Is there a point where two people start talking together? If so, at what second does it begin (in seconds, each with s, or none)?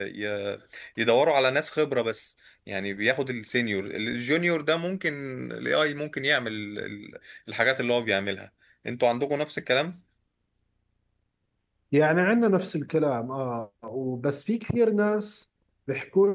none